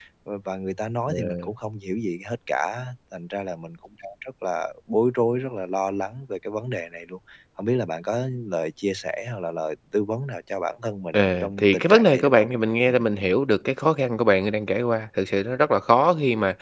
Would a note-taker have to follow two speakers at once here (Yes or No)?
Yes